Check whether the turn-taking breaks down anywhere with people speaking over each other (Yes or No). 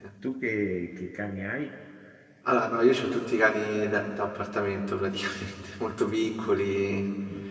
No